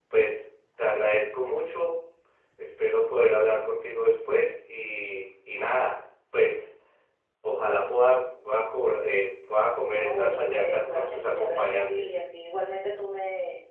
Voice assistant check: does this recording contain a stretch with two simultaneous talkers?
Yes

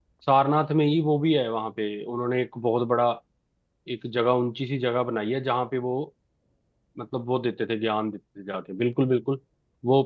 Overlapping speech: No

